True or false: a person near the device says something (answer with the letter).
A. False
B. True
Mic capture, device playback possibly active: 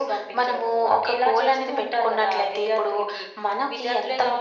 A